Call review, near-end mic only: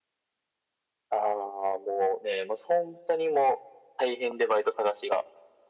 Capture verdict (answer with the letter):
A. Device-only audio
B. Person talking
A